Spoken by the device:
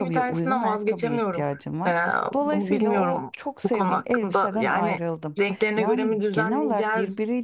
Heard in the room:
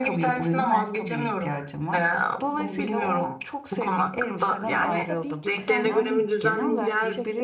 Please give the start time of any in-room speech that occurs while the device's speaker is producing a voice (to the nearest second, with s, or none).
5 s